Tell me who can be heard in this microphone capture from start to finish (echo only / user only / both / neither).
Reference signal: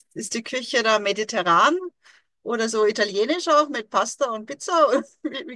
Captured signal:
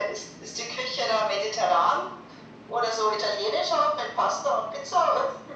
echo only